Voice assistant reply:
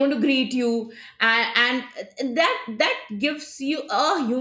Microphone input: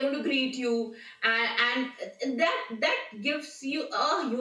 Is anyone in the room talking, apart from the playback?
No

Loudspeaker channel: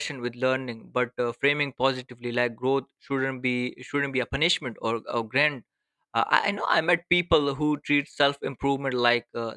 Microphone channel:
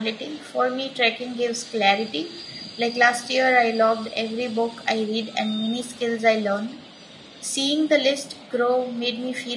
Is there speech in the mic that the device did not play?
Yes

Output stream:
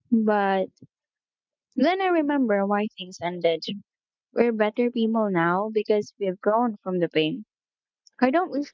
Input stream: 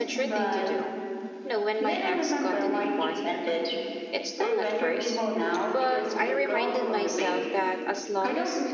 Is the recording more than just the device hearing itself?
Yes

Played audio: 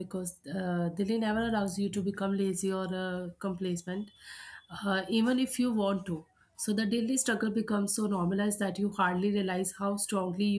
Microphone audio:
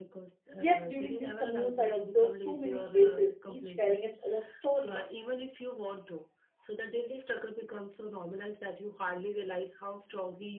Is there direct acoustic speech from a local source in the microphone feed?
Yes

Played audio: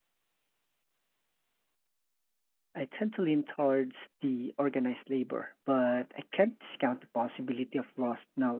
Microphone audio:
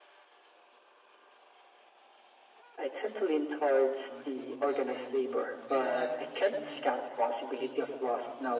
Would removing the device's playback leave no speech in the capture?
No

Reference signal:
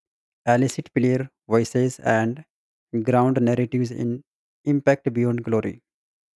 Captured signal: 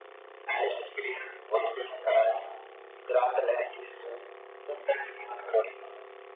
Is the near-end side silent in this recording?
Yes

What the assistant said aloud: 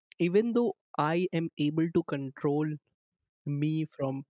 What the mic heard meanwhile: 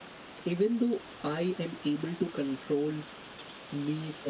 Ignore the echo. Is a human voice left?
No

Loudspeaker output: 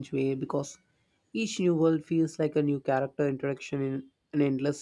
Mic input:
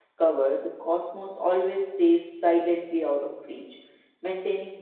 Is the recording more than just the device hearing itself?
Yes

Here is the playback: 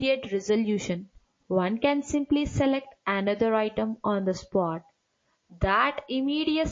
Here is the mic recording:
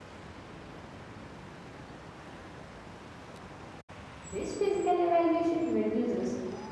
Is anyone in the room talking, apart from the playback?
Yes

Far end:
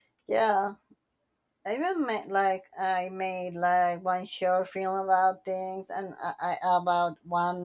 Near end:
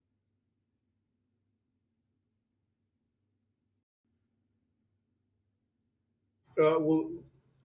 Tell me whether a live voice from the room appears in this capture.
Yes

